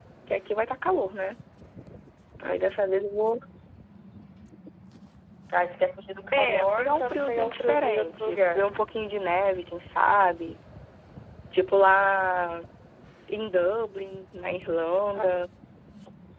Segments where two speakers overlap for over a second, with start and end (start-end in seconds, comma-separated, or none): 6.3-8.6